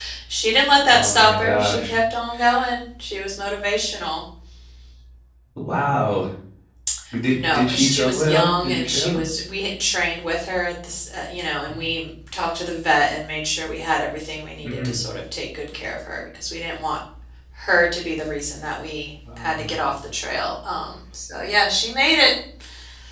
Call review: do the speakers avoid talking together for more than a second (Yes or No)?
No